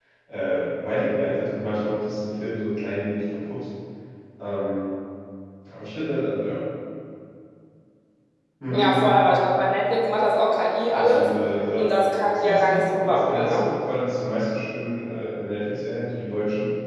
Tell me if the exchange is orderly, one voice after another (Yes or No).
No